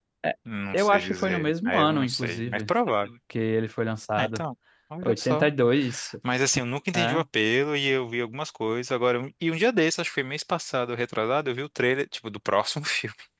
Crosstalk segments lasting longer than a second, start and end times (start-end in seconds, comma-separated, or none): 0.7-2.7